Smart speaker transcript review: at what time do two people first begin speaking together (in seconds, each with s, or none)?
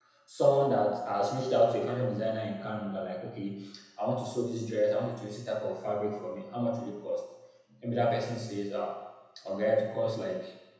none